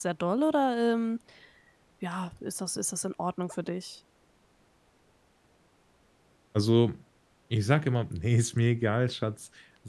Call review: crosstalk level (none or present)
none